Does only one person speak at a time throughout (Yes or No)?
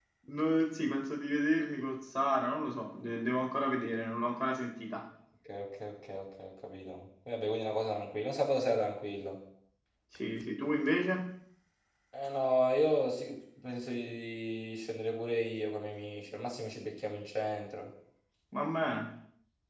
Yes